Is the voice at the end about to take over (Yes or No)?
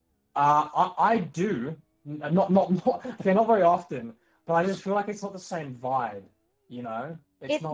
Yes